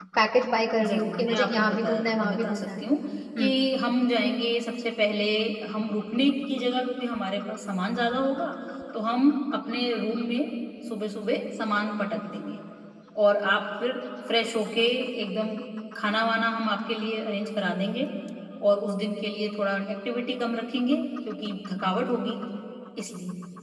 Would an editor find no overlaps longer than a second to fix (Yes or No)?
No